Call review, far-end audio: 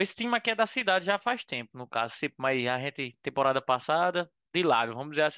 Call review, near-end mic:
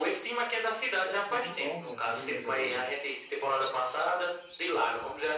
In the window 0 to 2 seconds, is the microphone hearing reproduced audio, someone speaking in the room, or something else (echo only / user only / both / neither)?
both